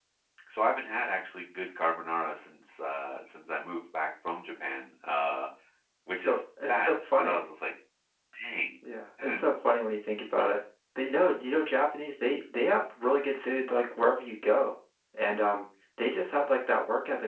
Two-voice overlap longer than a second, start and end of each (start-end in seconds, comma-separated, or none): 6.1-7.4